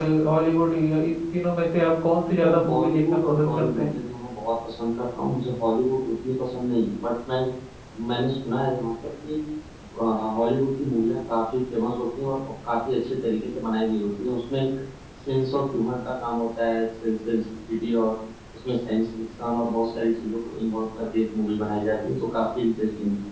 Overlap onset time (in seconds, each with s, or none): 2.3 s